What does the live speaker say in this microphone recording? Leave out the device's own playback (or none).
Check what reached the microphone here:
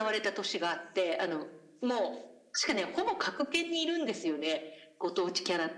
none